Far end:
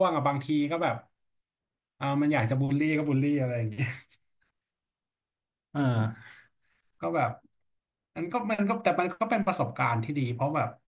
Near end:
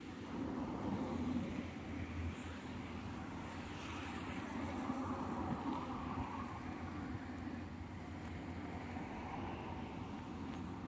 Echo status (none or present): none